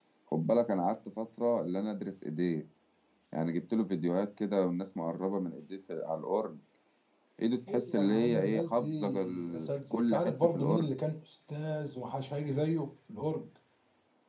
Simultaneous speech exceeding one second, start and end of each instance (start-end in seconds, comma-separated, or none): 7.7-10.9